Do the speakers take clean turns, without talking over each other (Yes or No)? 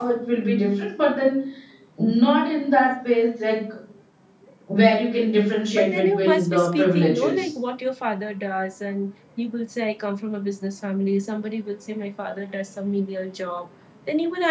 No